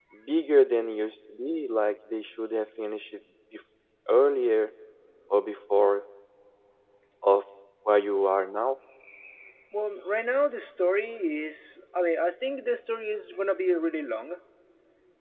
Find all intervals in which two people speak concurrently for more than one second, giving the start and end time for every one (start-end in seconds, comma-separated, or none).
none